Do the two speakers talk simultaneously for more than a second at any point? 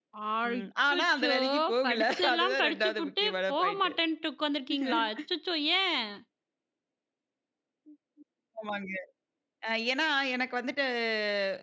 Yes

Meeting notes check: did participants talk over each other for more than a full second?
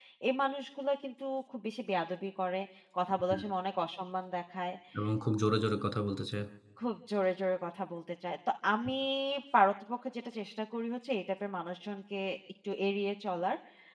No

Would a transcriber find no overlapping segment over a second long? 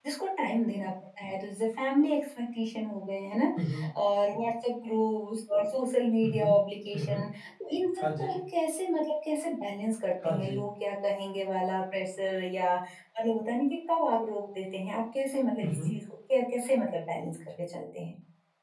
Yes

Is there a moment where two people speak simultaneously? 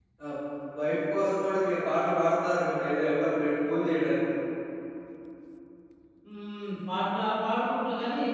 No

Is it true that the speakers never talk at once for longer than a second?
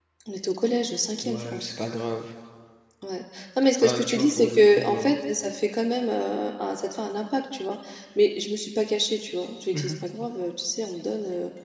No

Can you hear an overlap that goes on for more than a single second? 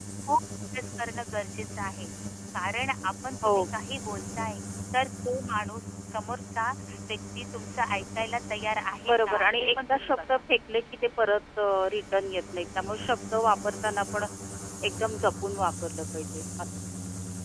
Yes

